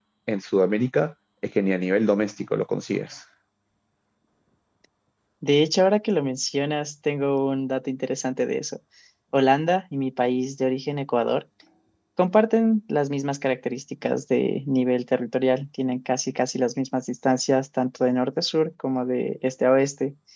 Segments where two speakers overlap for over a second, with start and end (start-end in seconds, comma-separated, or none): none